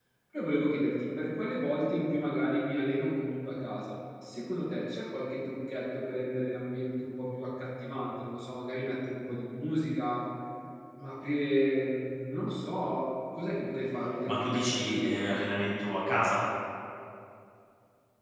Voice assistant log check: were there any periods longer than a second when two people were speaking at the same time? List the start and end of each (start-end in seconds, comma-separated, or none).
14.3-15.5